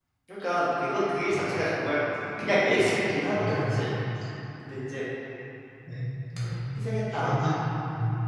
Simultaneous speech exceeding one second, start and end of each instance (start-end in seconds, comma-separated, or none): none